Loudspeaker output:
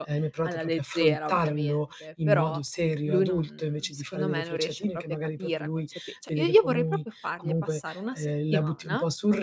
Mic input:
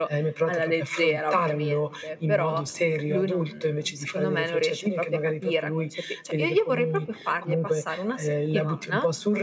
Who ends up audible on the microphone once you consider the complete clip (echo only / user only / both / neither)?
echo only